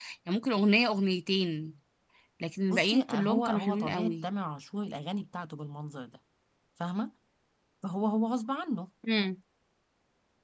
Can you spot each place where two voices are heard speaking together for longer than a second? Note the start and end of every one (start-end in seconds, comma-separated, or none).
2.7-4.3